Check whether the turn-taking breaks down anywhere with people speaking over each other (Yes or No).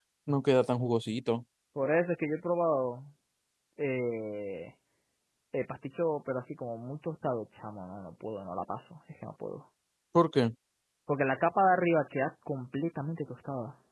No